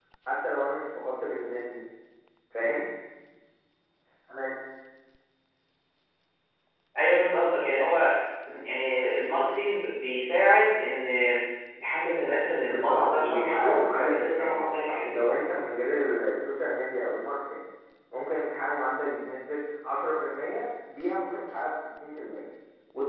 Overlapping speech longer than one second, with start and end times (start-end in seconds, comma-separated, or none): 12.6-15.1